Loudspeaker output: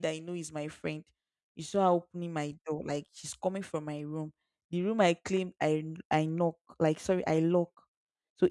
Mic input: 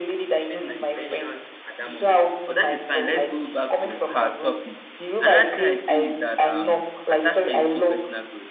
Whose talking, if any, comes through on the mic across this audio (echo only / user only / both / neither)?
both